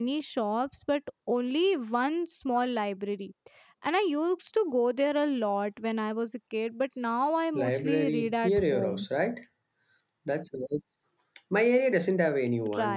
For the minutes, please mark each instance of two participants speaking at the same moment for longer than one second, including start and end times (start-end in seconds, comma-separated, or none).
7.6-9.1